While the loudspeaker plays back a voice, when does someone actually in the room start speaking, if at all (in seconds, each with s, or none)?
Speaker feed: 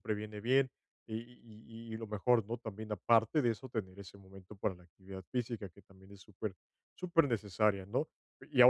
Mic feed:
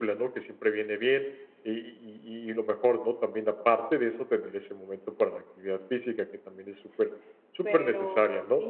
7.6 s